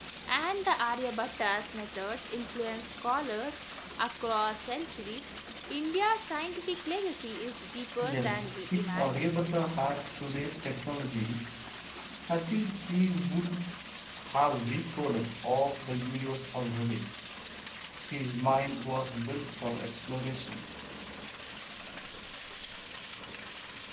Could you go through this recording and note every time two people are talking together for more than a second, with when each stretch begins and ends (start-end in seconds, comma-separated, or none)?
8.0-9.3